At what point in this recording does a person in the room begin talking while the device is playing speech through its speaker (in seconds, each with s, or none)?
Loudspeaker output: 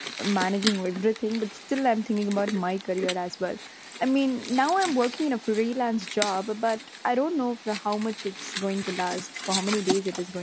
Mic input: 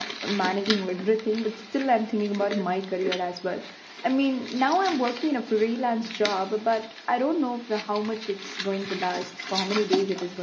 none